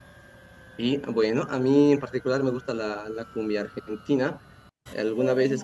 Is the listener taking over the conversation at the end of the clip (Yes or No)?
No